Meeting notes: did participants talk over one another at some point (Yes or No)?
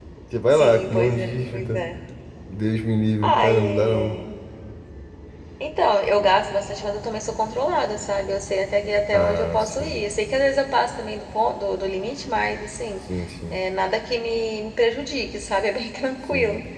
Yes